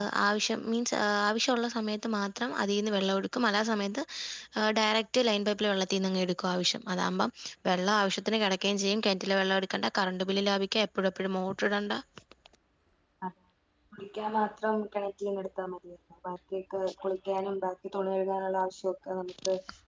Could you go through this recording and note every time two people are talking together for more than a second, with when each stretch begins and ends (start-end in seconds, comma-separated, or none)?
none